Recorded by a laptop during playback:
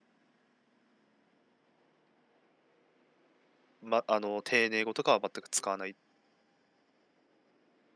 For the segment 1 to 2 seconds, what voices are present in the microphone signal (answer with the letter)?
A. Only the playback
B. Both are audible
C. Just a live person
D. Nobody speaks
D